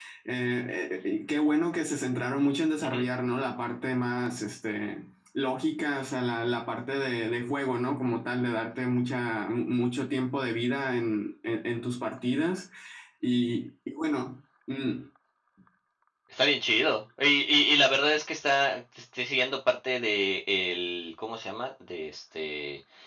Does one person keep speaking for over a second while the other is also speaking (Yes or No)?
No